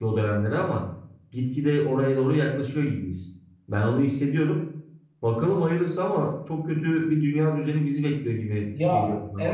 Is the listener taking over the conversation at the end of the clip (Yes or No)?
Yes